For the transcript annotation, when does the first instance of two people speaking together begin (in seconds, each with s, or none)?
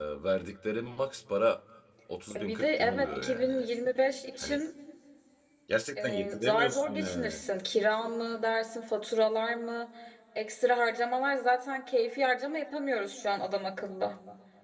2.3 s